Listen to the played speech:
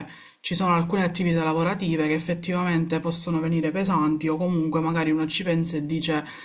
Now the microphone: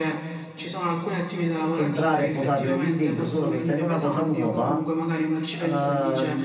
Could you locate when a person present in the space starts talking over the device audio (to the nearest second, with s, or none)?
2 s